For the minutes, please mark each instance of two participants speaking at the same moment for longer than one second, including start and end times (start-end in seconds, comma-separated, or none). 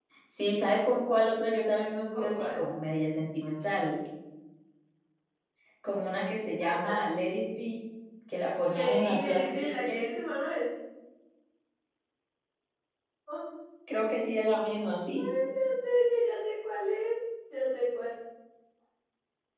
8.7-10.0